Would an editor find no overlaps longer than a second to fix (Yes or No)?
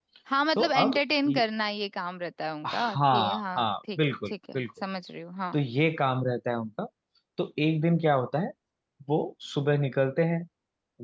No